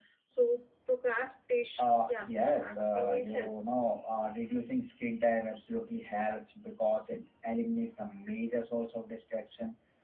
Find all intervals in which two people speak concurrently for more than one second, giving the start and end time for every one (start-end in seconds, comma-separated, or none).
1.8-3.6